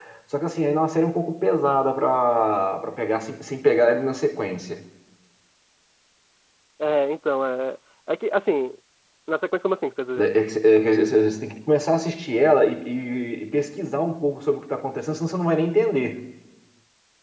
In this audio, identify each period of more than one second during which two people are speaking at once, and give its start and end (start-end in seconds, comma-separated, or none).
none